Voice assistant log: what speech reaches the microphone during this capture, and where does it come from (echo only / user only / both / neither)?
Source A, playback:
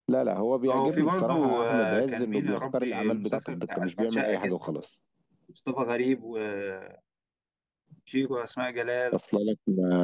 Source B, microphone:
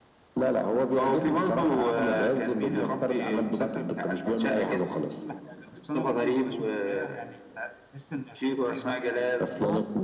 both